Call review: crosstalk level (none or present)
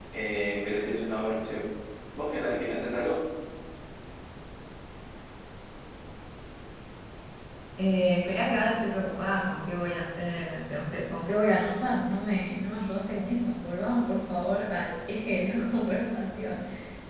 none